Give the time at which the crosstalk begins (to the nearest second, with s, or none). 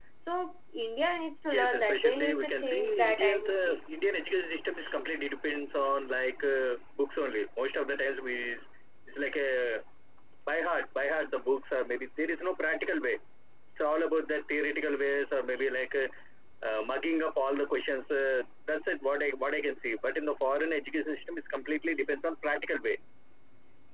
2 s